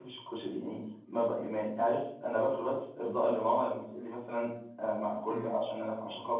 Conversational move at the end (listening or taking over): listening